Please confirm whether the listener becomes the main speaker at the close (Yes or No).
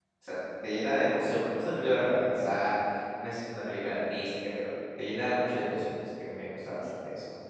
Yes